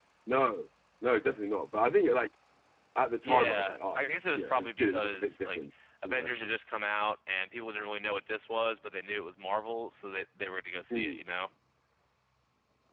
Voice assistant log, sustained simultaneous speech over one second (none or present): present